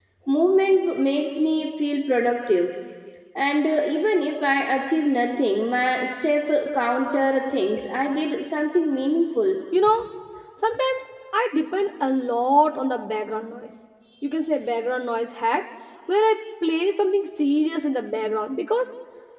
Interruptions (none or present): none